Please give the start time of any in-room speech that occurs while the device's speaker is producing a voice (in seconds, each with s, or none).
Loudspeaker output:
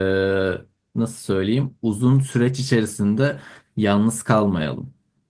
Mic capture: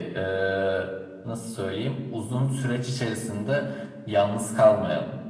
none